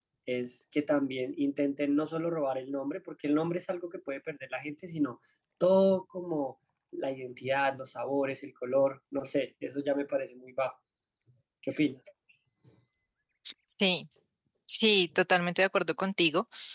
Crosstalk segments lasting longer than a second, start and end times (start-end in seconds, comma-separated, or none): none